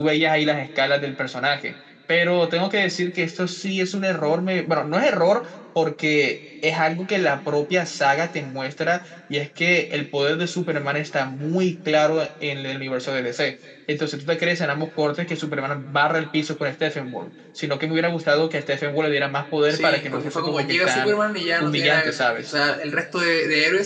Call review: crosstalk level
present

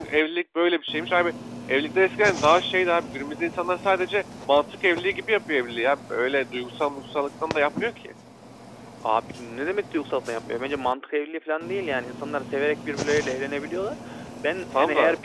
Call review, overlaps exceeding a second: none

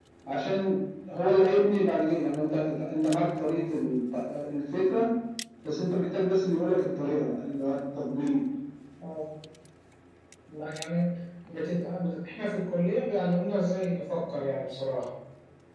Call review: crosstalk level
none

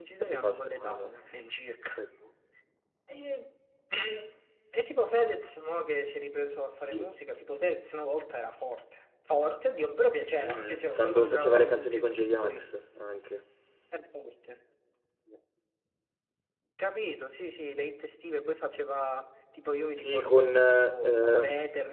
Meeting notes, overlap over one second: present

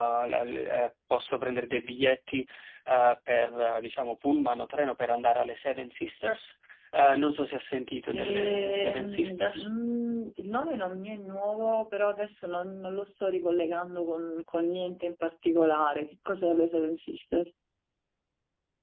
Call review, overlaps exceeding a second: present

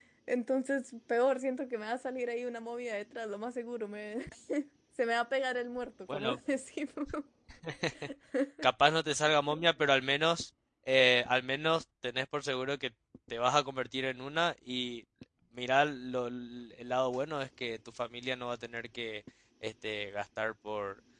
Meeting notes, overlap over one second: none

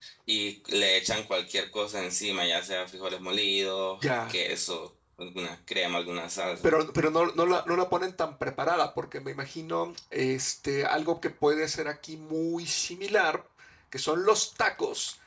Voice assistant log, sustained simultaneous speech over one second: none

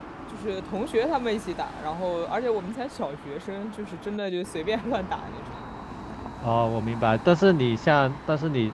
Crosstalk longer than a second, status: none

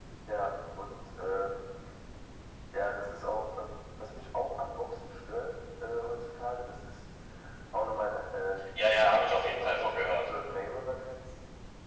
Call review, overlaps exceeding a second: present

